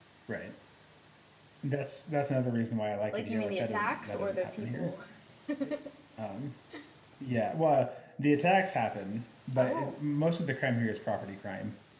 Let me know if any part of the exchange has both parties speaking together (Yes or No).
Yes